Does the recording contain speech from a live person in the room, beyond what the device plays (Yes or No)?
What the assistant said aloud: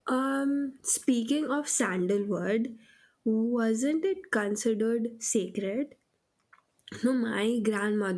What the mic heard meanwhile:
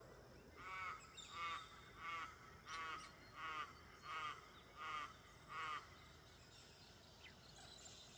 No